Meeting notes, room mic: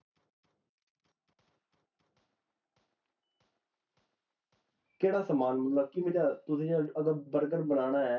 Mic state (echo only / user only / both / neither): user only